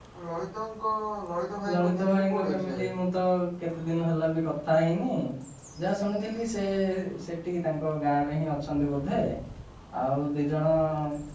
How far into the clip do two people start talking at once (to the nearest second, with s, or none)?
2 s